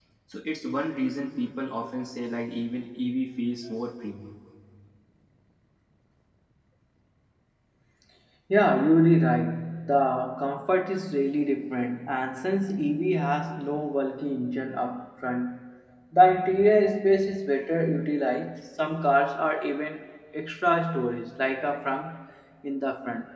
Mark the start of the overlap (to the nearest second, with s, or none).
none